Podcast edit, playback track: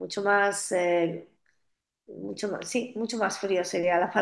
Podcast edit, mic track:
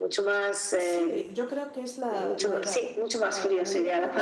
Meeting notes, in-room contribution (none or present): present